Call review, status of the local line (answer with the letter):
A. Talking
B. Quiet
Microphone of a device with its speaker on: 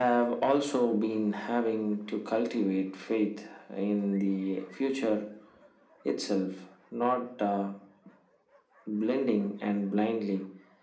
B